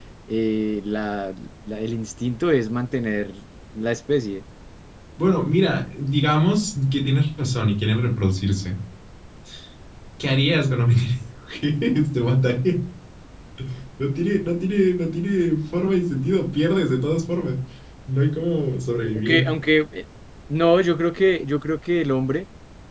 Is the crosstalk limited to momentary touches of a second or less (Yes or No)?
Yes